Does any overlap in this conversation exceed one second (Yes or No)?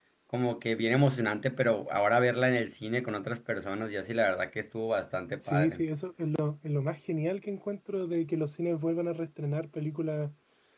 No